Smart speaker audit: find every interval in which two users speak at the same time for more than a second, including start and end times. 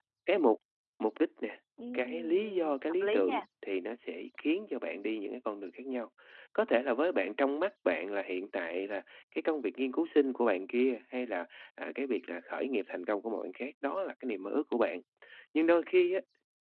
1.9-3.4

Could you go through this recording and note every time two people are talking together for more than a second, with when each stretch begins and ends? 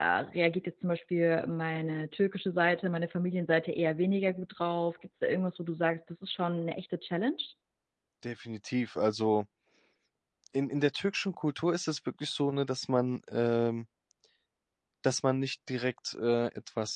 none

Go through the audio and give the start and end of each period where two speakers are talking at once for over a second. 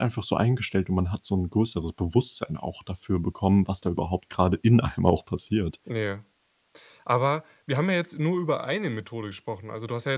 none

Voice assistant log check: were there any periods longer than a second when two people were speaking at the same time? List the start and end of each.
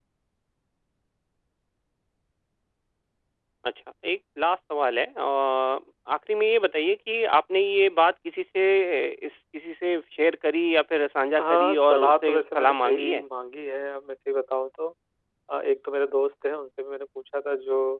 11.4-13.2

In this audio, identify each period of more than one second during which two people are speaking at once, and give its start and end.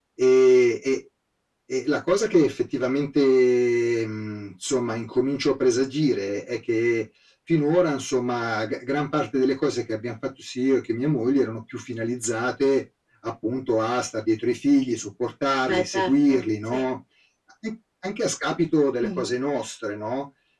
15.7-16.9

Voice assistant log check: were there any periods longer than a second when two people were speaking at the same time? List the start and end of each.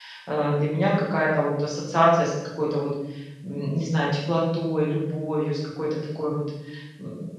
none

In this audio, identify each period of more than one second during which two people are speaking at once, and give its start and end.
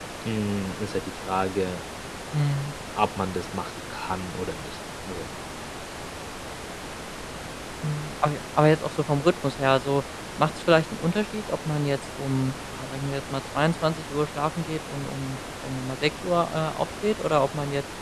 none

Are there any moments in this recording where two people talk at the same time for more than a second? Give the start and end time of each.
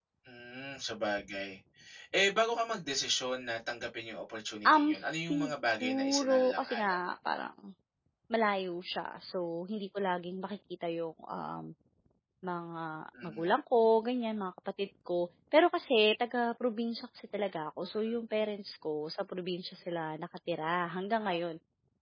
4.7-7.0

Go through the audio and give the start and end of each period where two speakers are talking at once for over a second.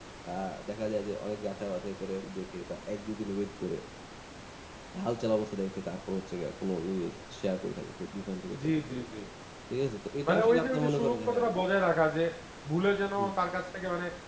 10.3-11.5

